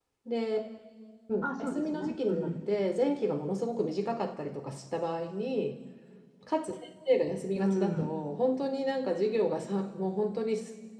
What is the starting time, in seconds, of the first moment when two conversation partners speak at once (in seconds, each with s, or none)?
1.4 s